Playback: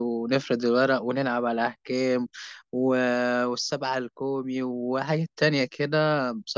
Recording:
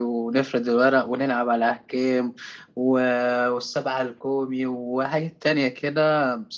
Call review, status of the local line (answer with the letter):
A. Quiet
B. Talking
A